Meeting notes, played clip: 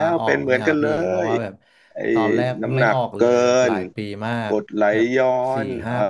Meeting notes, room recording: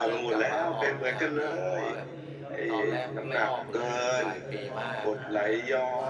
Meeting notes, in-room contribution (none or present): present